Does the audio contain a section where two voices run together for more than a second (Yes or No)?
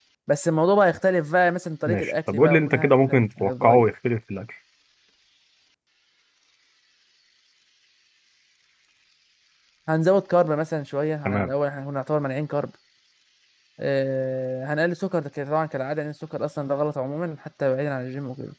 Yes